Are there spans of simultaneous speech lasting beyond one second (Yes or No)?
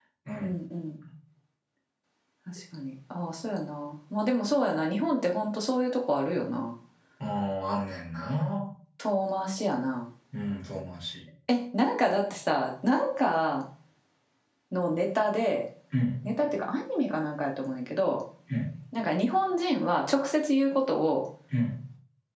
No